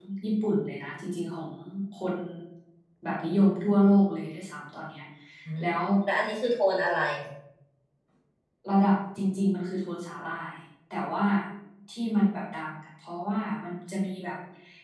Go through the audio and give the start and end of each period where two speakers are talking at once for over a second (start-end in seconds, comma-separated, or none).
none